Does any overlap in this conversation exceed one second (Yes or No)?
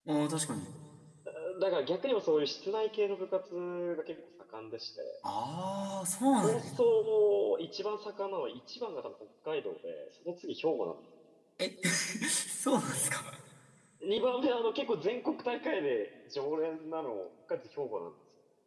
No